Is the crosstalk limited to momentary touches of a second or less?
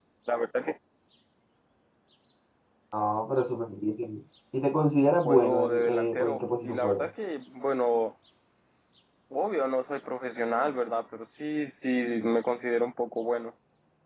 No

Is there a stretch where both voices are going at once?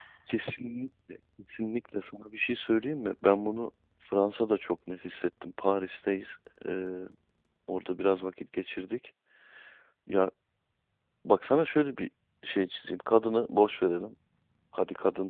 No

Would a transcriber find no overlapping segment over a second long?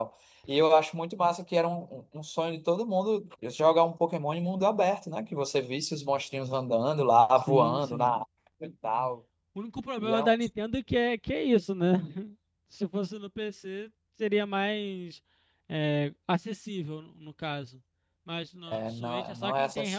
No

